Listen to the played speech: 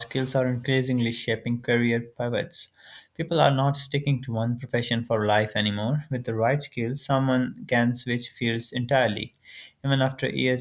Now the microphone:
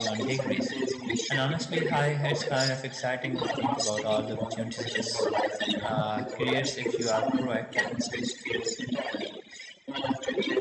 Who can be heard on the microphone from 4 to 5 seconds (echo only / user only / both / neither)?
both